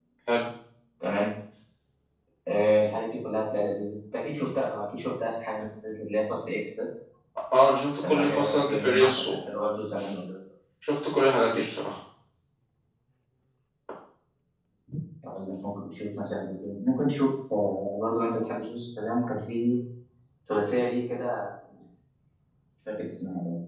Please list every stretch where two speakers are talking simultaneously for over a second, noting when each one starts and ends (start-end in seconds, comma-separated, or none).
8.1-9.3